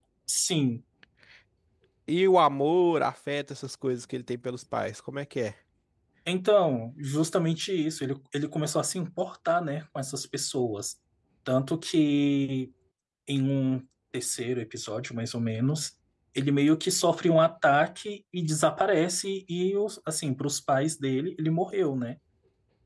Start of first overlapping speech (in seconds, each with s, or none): none